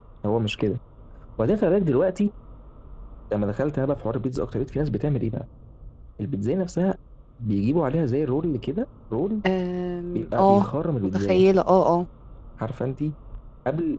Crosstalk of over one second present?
No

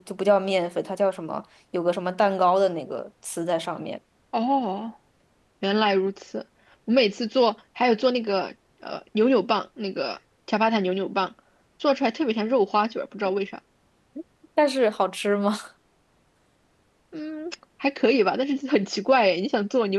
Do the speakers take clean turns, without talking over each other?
Yes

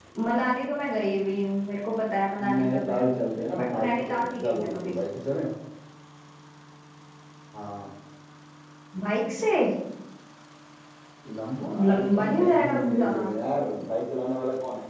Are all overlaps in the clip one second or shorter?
No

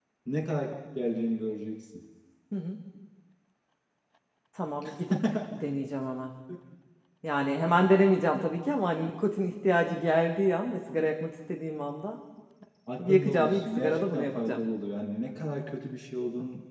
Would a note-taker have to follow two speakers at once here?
Yes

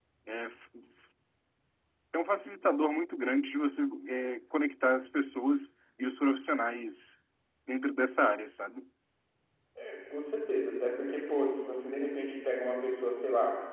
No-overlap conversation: Yes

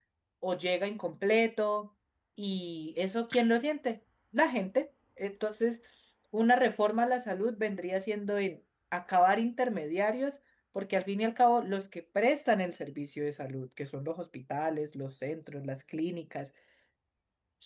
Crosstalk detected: No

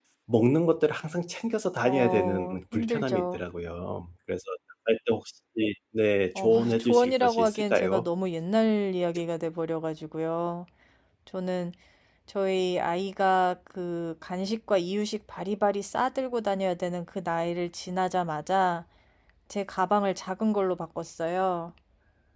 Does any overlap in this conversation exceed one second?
Yes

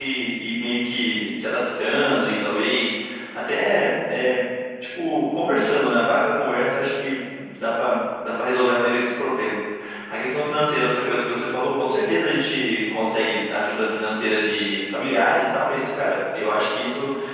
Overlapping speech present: No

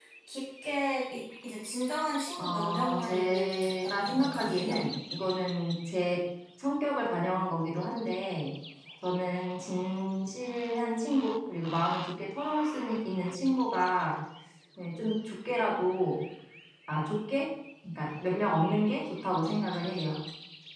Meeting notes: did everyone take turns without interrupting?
No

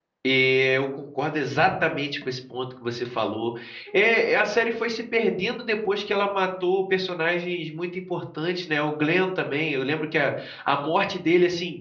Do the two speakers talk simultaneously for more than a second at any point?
No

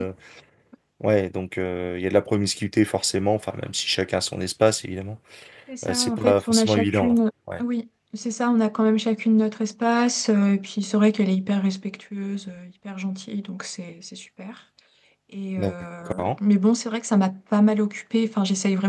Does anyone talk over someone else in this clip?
Yes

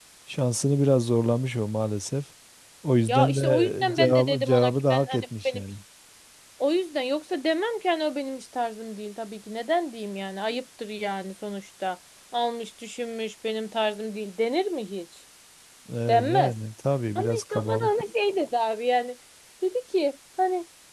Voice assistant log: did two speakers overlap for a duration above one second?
Yes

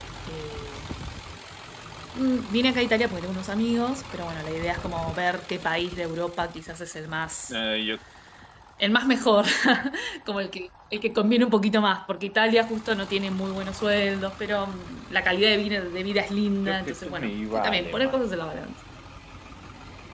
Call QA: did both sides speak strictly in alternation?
No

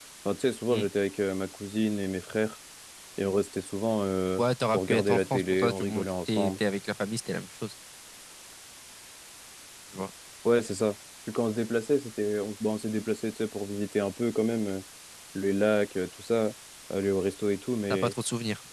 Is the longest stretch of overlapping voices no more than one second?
No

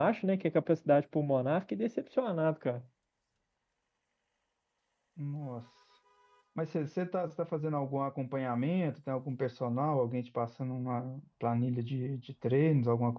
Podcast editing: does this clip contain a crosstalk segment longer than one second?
No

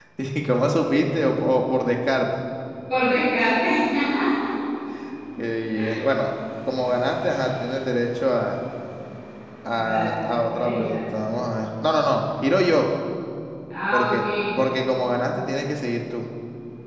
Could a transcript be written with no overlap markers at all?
No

